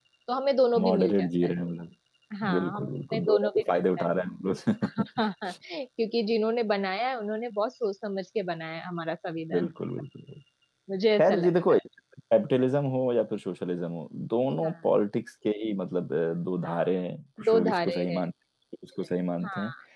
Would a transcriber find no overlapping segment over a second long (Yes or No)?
No